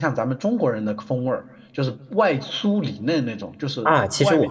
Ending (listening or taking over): taking over